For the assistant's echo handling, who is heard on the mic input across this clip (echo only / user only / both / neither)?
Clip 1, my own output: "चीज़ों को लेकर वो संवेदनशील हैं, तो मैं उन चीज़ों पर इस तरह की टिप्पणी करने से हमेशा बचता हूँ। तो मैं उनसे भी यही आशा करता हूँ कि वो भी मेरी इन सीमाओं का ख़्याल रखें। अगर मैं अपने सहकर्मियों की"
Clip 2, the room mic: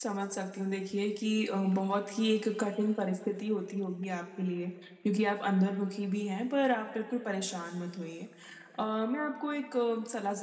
user only